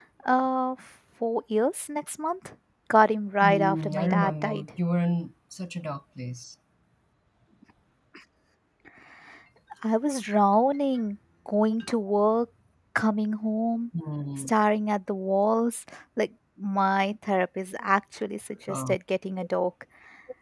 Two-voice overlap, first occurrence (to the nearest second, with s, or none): 3 s